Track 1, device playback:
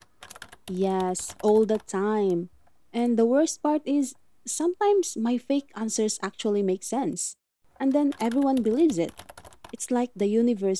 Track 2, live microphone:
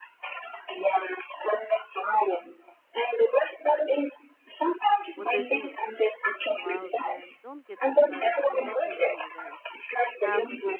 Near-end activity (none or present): present